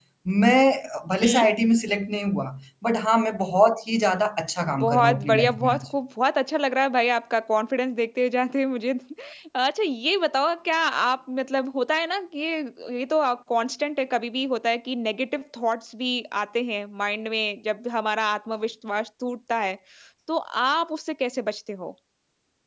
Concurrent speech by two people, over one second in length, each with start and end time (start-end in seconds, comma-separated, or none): 4.6-5.9